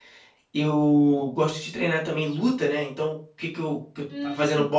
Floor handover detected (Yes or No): No